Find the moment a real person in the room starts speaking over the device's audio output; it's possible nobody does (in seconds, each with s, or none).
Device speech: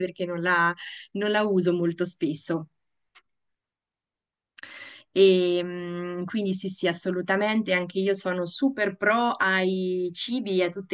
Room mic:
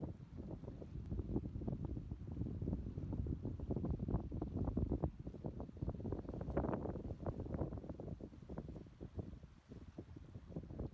none